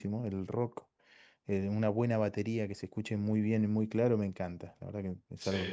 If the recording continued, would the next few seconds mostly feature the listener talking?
Yes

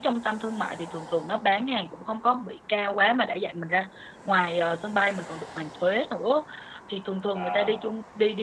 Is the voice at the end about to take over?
No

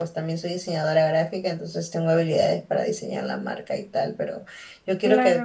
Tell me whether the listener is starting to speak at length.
No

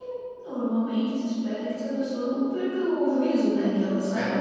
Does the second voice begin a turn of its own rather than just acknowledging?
No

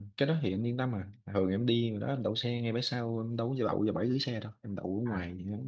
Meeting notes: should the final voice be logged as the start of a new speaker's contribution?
No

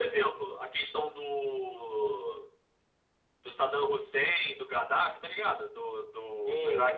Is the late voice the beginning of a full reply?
Yes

